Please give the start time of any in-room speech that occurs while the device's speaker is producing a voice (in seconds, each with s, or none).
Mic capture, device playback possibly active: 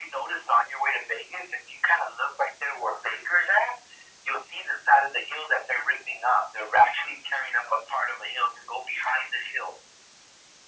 none